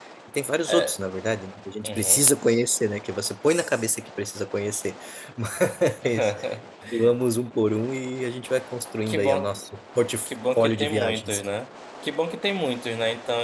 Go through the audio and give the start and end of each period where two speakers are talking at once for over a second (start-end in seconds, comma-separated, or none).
10.3-11.5